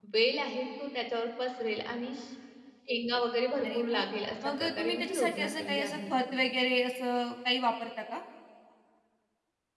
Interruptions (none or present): present